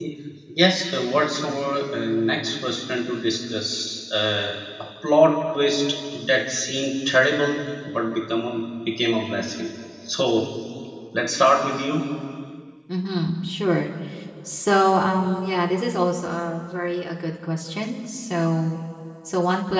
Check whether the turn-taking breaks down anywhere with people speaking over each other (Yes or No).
No